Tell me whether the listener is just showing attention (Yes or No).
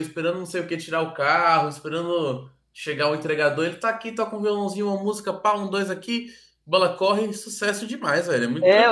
No